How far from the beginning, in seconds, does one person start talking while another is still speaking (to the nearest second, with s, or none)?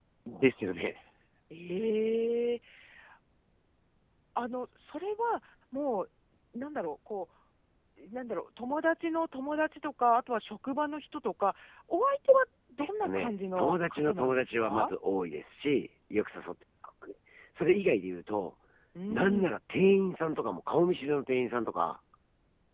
13 s